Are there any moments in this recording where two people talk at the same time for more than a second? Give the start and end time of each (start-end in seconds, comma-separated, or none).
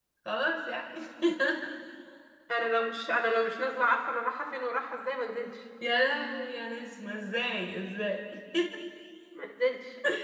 none